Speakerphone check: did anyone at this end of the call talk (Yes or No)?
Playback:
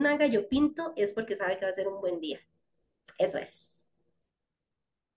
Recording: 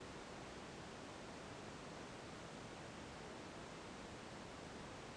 No